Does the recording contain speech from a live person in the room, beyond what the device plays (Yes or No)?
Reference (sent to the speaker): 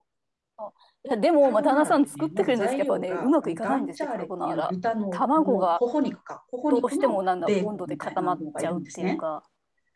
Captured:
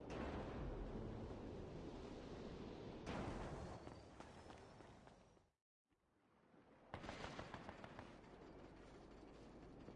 No